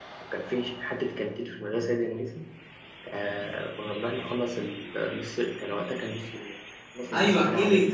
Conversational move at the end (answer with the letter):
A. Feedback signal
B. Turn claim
B